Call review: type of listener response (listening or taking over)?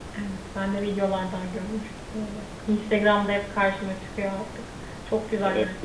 taking over